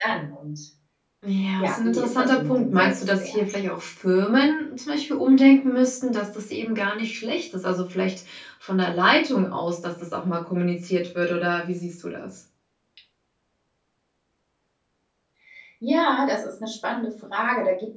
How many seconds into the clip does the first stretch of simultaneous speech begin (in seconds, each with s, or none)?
1.6 s